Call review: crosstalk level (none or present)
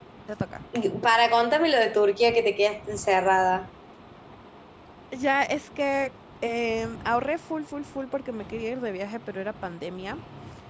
none